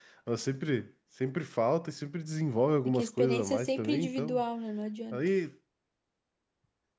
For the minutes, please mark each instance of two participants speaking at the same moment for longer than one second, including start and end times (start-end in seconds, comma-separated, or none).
2.9-4.4